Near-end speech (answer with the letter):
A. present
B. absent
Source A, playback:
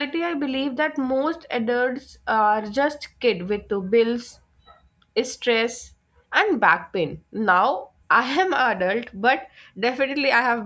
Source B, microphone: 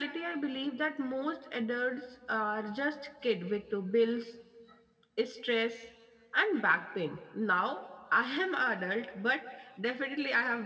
B